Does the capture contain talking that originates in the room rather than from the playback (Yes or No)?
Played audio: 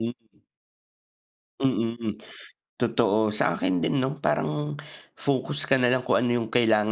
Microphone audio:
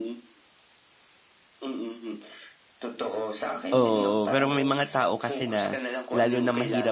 Yes